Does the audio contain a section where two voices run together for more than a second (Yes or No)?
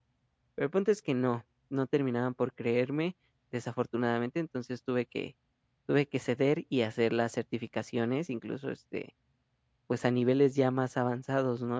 No